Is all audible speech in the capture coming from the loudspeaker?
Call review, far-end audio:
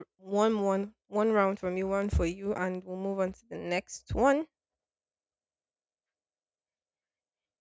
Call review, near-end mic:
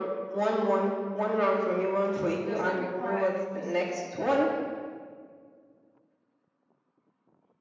No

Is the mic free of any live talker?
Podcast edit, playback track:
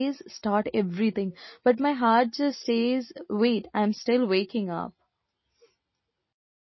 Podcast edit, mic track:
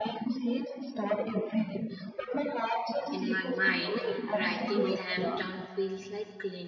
No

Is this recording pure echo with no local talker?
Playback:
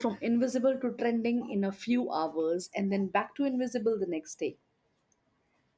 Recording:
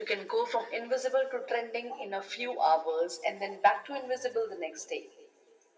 Yes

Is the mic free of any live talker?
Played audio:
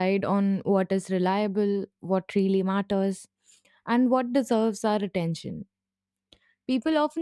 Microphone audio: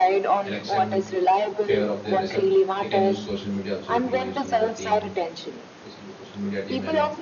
No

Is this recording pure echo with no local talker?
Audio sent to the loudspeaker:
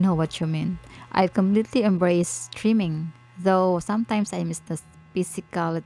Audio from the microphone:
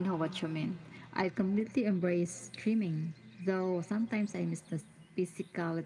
Yes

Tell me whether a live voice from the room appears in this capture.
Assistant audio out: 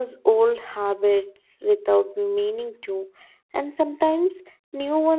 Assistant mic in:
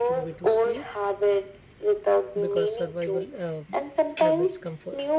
Yes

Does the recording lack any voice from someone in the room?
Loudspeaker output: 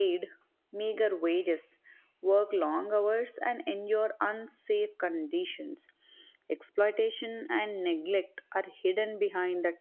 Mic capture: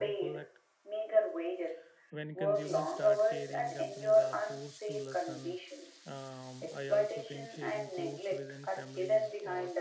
No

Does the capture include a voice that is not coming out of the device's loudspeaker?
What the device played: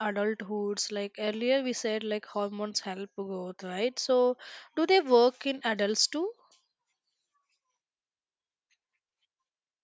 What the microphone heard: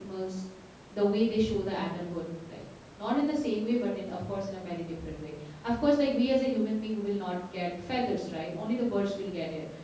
Yes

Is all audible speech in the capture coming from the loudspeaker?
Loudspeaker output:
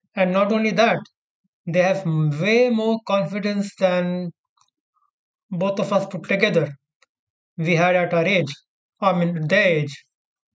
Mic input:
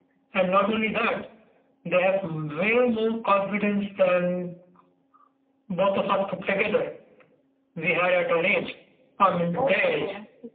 No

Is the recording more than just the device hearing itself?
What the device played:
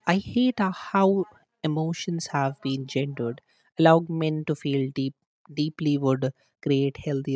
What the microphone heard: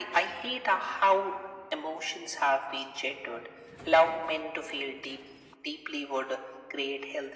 No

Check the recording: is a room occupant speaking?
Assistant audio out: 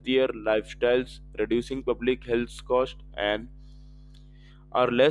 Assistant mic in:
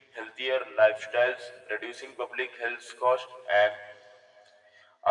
No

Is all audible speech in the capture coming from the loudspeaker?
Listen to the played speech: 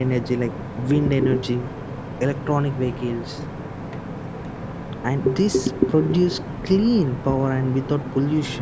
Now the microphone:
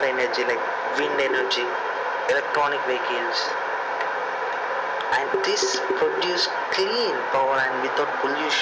Yes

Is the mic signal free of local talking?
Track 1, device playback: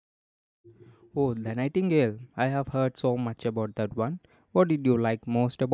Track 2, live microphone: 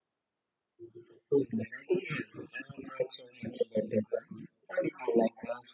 Yes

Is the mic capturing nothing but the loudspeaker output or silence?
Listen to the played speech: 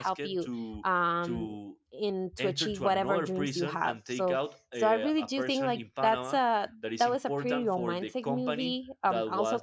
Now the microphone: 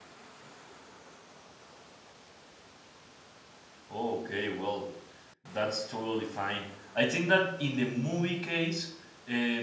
No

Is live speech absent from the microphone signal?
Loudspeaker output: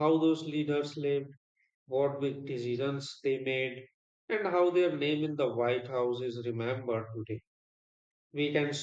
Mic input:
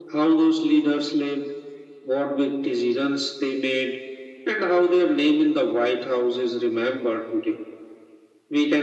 Yes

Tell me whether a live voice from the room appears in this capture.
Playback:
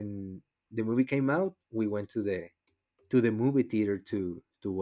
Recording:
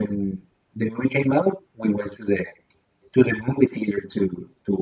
No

